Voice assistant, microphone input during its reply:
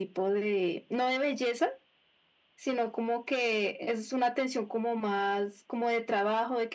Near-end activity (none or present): none